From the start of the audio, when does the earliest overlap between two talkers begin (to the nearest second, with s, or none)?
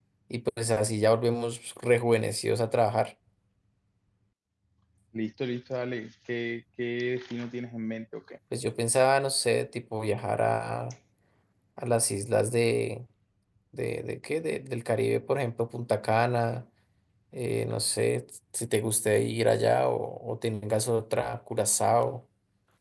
none